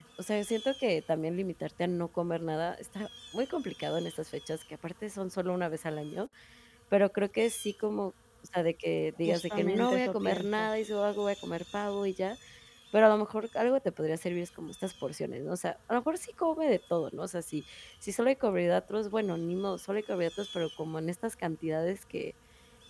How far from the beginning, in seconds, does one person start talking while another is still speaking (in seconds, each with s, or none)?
9.2 s